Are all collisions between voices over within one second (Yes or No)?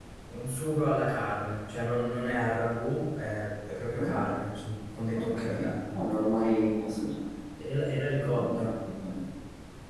Yes